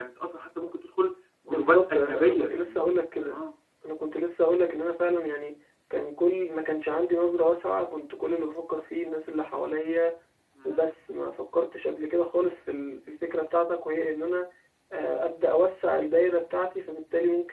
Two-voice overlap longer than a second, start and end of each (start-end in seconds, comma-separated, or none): 1.5-2.8